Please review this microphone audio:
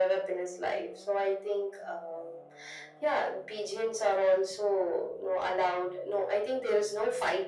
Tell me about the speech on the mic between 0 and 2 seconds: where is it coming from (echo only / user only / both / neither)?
echo only